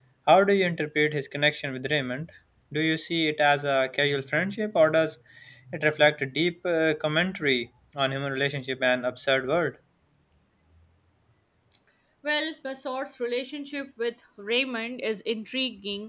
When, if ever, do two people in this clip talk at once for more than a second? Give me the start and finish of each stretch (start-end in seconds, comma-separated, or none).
none